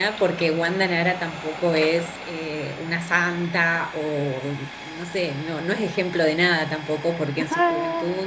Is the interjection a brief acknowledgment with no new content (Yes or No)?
Yes